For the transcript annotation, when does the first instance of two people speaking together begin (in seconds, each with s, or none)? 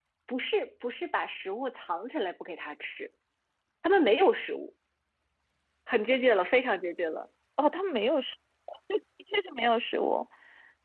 none